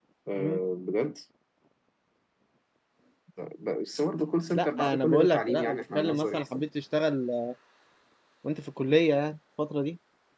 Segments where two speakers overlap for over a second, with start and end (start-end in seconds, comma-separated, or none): 4.5-6.6